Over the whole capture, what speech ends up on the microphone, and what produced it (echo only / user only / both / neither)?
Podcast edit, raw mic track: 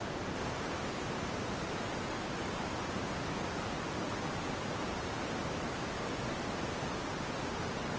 neither